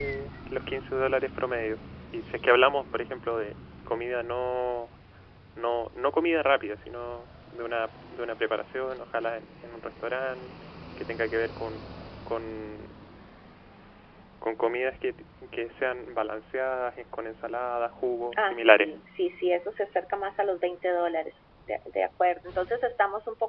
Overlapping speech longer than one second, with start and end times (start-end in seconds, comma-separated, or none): none